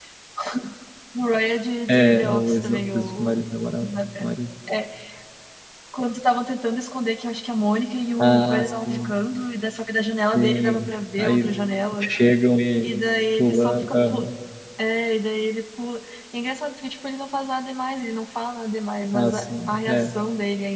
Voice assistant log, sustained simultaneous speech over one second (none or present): present